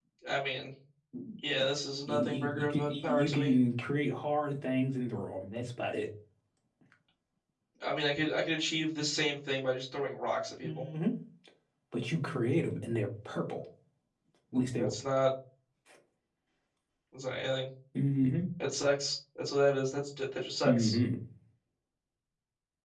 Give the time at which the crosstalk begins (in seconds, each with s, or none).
2.1 s